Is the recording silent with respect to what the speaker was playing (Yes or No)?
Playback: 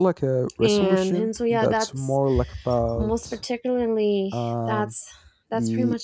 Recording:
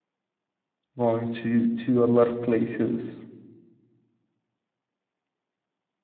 Yes